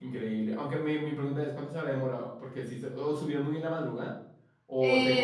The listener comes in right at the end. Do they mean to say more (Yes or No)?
Yes